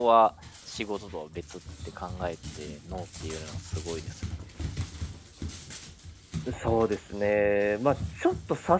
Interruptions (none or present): none